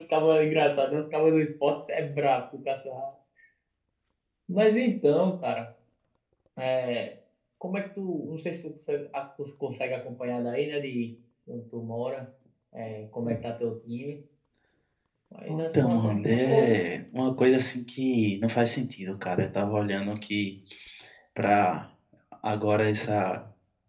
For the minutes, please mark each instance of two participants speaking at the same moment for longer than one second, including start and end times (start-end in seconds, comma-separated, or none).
15.5-16.8